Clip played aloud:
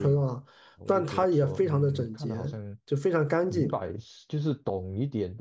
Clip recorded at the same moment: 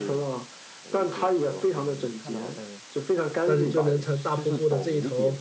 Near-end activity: present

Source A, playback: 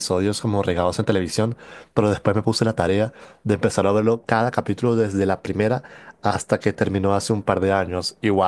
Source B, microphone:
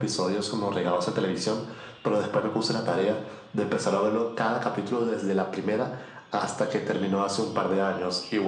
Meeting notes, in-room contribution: none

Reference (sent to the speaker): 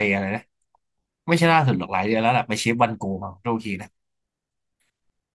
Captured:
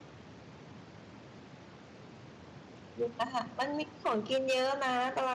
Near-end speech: present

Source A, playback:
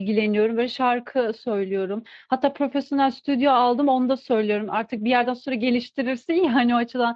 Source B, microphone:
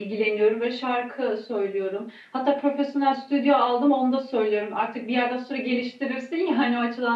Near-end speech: none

